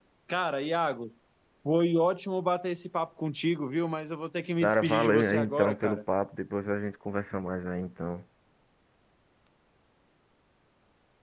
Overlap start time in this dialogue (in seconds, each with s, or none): 4.6 s